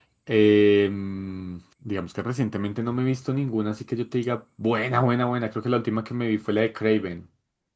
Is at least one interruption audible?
No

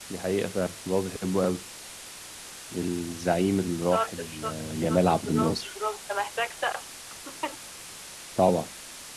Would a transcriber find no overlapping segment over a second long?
No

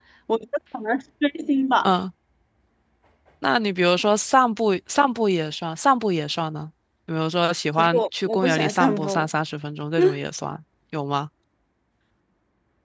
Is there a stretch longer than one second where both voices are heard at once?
Yes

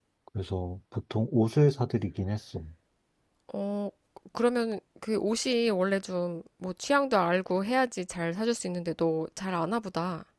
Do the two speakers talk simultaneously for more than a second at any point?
No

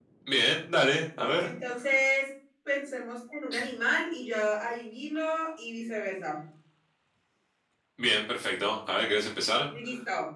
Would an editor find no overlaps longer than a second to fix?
Yes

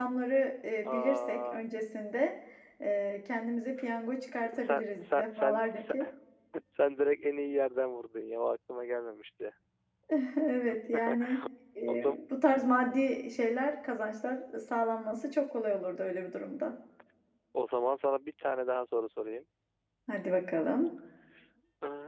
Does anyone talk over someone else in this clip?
Yes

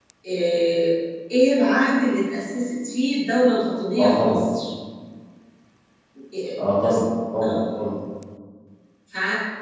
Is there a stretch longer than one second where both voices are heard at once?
No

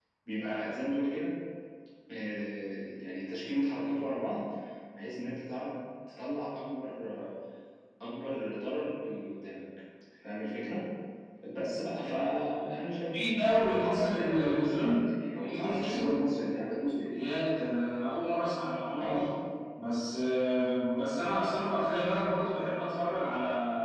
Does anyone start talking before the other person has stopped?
Yes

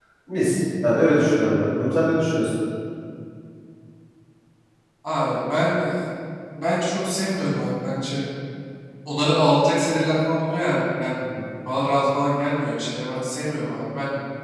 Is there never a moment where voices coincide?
Yes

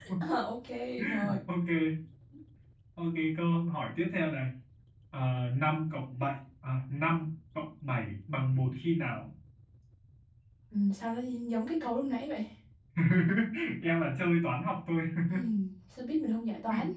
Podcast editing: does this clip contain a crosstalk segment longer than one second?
No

